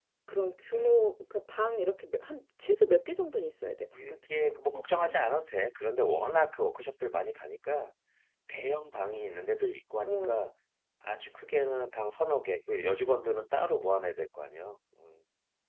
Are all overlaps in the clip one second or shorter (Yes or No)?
No